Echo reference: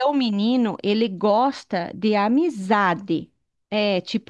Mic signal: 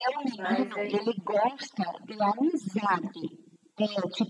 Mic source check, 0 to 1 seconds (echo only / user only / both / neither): both